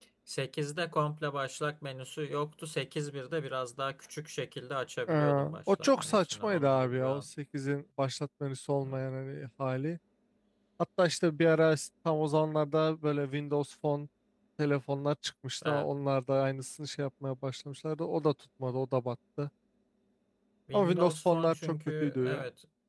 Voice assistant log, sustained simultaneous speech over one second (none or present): present